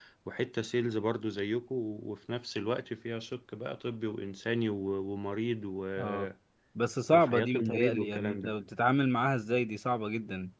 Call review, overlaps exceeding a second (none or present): present